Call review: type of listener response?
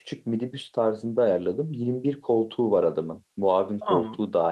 taking over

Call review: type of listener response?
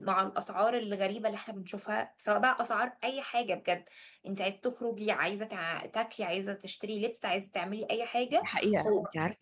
taking over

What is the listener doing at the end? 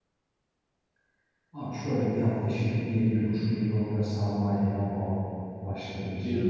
taking over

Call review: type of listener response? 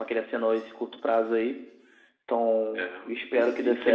taking over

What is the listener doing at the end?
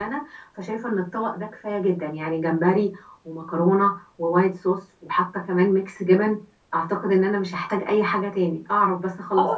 taking over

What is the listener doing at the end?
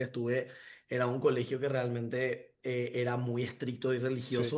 listening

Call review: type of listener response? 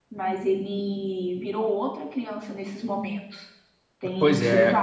taking over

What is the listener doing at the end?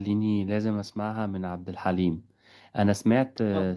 listening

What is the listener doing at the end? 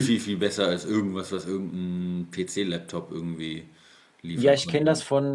taking over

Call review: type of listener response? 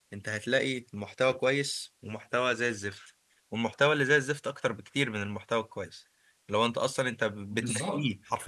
listening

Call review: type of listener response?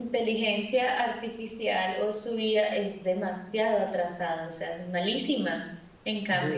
listening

